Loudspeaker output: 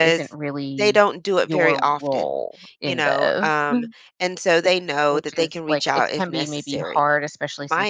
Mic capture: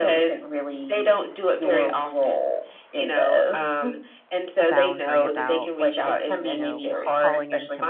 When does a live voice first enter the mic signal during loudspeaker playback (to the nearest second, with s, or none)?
5 s